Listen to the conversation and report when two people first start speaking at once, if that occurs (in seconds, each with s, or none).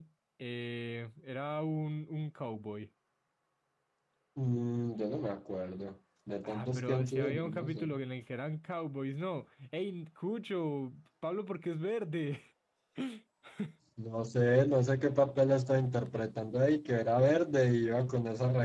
6.4 s